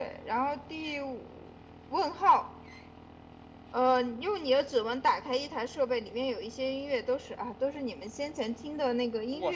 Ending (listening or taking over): taking over